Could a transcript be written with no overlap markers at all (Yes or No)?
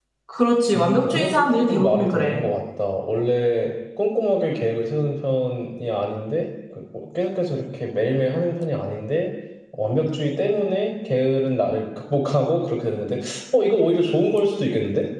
No